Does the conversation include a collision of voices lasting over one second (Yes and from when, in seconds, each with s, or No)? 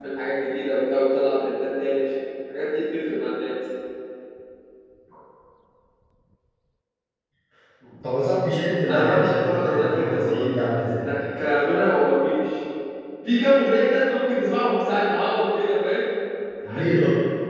Yes, from 8.9 s